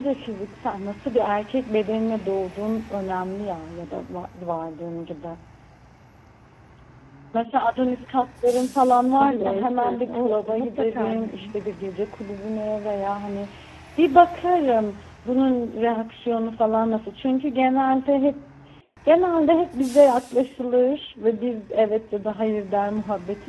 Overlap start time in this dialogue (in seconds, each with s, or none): 9.2 s